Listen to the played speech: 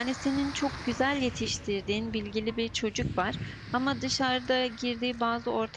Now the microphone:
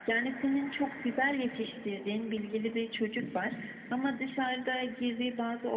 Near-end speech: none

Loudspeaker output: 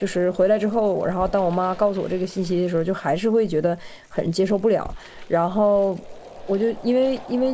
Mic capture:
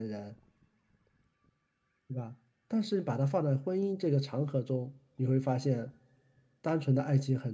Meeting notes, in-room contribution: present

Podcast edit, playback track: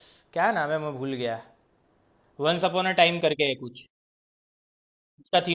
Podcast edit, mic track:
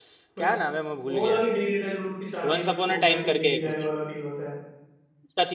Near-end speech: present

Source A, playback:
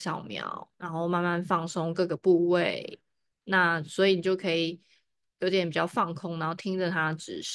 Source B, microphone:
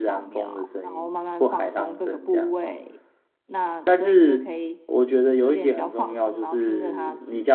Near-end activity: present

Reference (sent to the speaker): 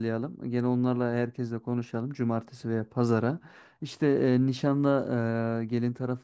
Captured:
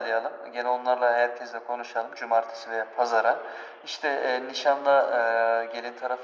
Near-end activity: none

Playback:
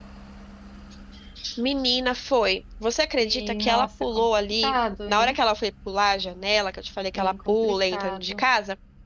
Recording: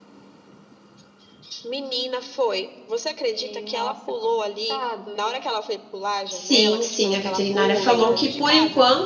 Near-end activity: present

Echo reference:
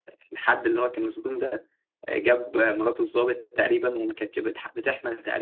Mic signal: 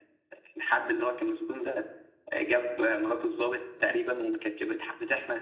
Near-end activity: none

